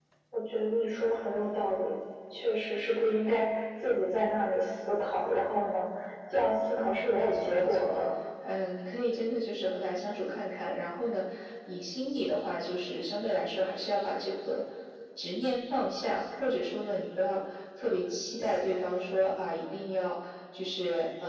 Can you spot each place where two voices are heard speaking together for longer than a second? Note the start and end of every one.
6.8-8.0

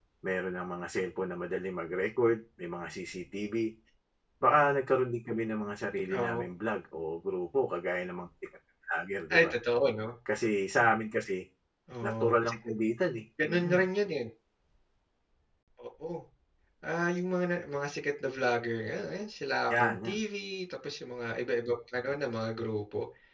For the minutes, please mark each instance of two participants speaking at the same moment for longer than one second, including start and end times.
none

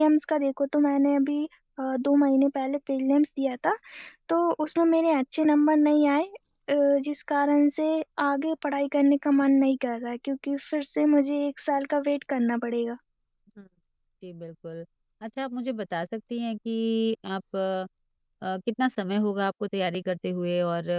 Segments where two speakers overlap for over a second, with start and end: none

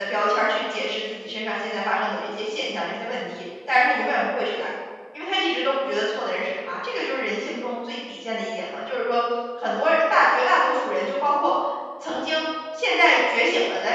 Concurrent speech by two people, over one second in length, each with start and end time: none

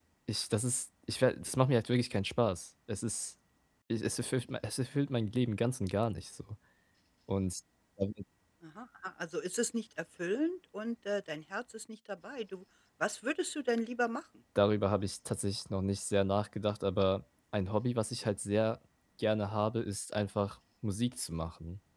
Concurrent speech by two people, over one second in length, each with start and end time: none

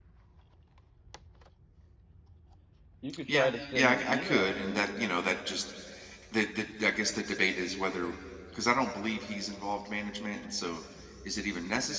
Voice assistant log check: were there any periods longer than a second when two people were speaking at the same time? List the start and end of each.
3.3-5.1

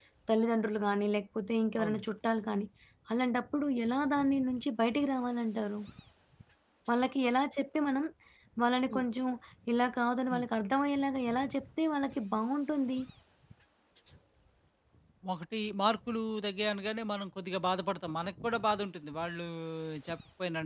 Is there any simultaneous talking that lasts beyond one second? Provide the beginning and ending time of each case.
none

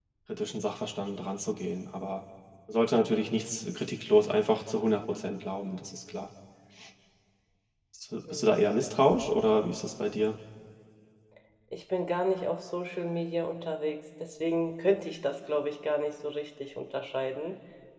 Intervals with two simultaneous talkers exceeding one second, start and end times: none

